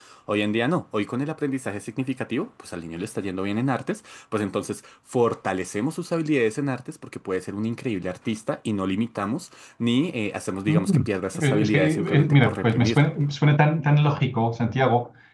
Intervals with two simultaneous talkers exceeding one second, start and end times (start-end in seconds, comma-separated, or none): 11.4-13.1